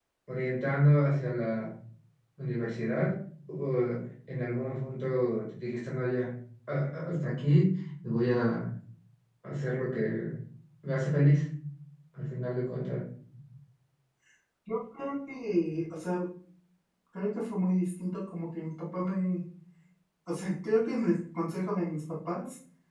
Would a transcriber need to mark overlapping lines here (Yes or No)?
No